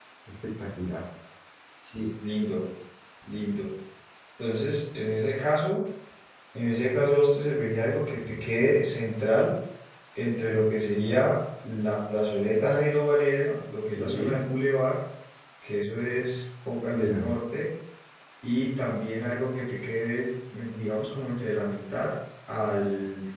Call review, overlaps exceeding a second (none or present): none